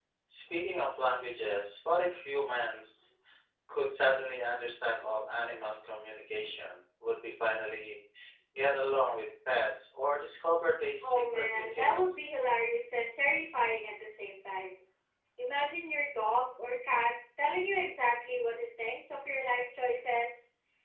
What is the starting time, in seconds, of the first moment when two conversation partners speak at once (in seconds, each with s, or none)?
11.0 s